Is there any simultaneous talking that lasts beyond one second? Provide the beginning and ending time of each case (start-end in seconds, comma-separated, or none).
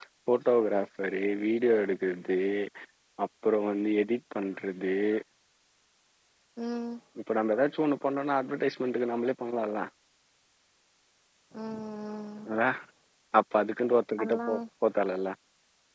none